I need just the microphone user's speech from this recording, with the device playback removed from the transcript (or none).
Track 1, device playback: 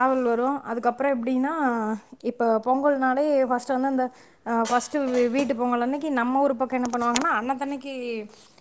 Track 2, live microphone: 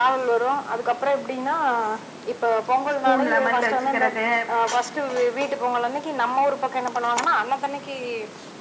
ஸ்பூன் லெமன்ல வச்சிக்கிறது